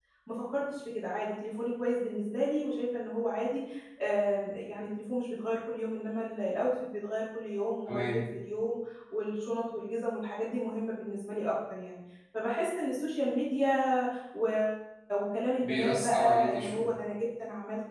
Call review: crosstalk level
present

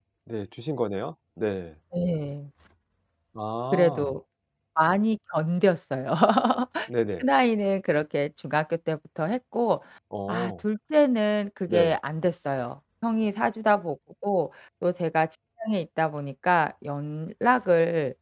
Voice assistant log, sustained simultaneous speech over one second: none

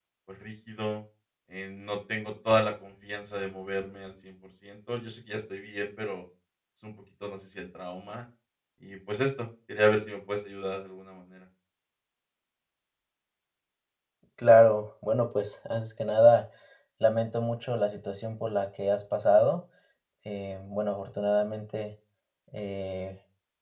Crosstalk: none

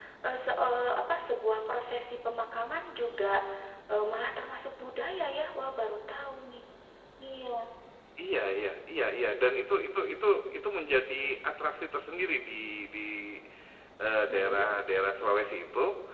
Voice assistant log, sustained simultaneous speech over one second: none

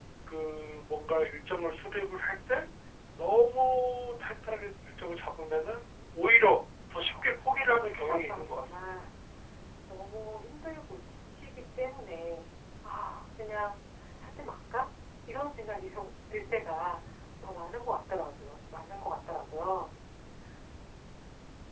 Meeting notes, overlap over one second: present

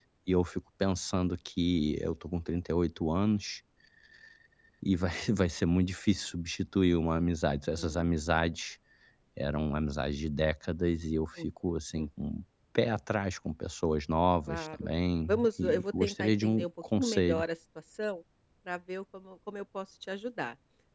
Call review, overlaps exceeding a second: present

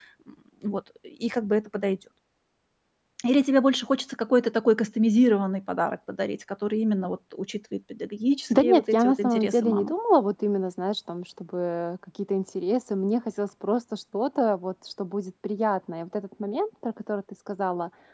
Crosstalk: present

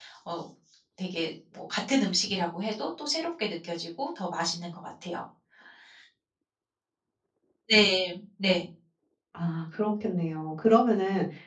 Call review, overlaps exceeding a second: none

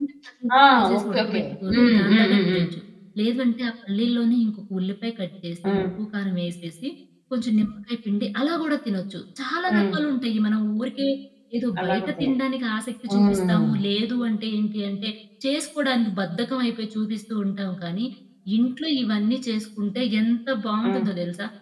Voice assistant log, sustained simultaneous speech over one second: present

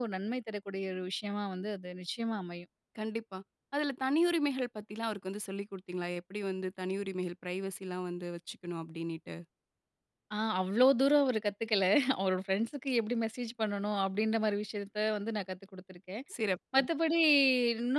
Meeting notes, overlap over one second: none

